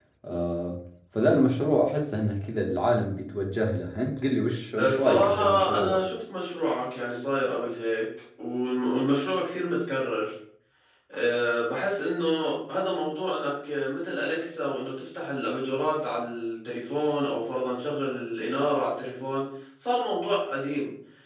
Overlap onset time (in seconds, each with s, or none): 4.8 s